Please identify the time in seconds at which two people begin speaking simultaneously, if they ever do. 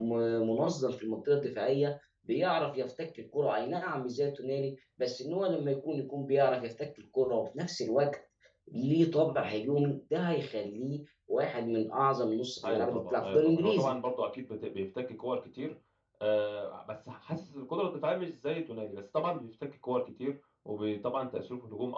12.6 s

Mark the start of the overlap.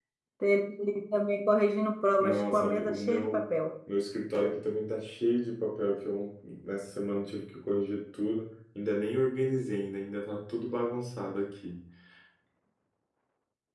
2.2 s

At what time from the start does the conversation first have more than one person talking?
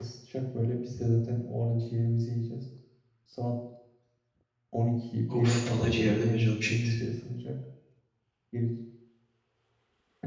5.3 s

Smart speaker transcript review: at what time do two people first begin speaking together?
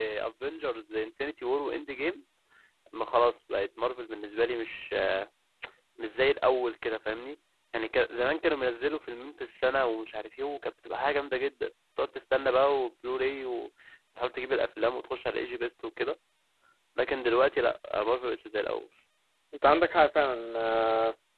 none

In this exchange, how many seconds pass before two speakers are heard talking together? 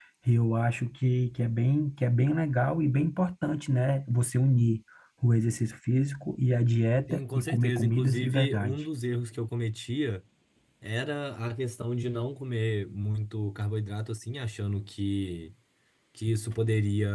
7.1 s

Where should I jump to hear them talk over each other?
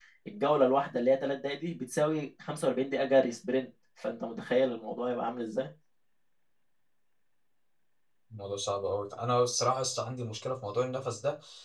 none

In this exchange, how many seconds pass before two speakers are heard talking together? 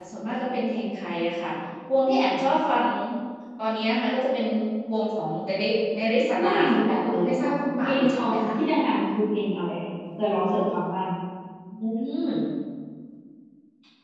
6.3 s

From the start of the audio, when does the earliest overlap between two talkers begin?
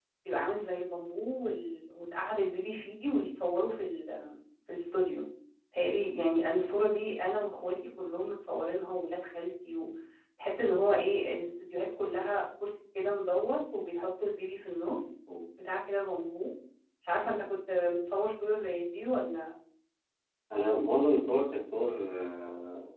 none

